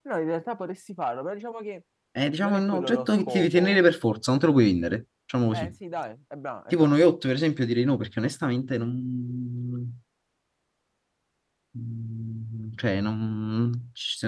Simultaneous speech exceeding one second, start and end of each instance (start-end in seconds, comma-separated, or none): 2.4-3.8